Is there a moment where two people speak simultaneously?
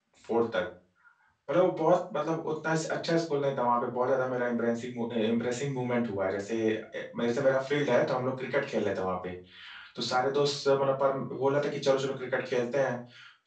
No

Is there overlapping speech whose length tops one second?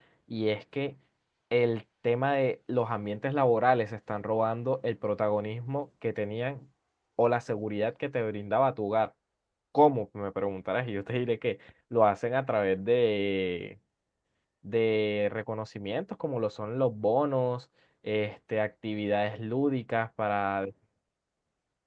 No

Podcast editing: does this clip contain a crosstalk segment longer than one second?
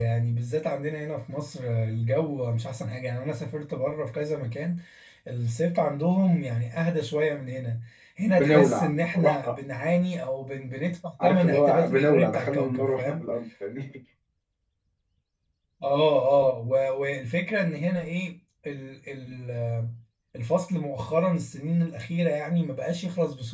Yes, from 8.3 s

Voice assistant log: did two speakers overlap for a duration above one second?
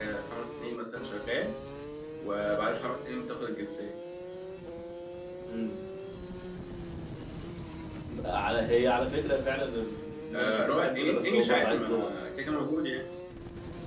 Yes, from 10.3 s

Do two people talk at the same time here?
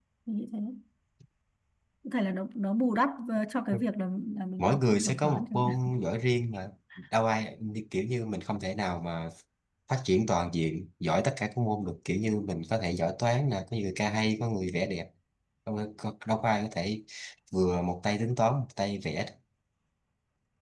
Yes, from 4.6 s

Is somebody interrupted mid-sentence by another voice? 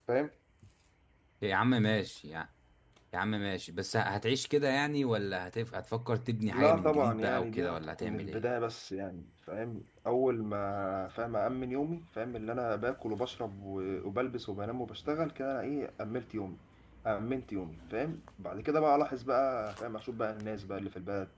Yes, from 6.5 s

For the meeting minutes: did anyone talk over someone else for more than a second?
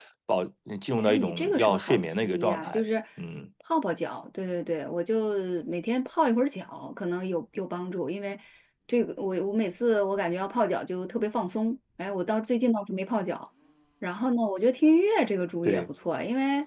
Yes, from 1.0 s

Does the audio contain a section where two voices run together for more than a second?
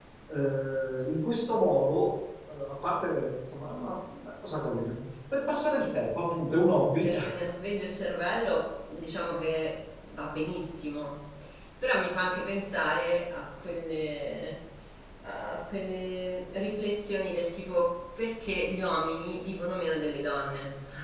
No

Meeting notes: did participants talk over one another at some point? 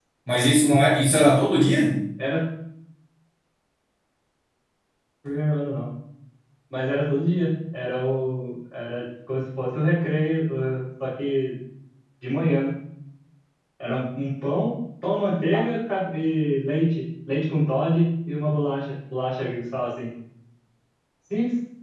No

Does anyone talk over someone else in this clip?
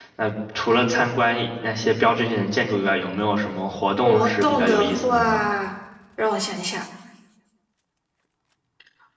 Yes, from 4.0 s

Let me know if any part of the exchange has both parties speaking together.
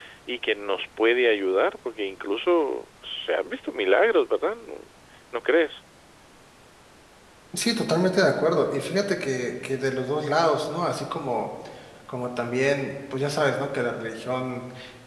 No

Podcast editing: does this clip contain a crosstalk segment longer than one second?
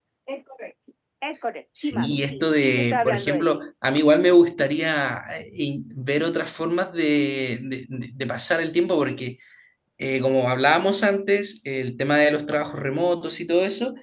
Yes, from 1.8 s

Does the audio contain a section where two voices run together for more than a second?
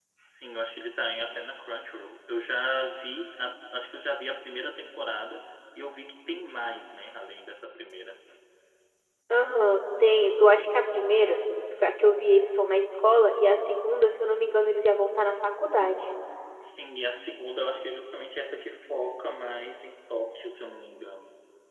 No

